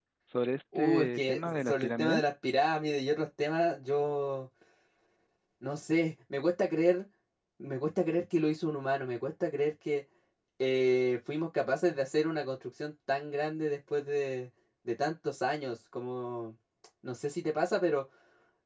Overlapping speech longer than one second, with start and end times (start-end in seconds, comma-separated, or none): 0.8-2.2